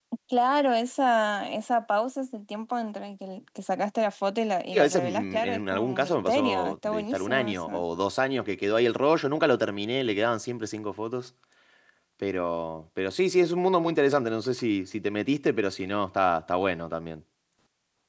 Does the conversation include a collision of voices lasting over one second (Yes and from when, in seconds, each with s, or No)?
Yes, from 4.7 s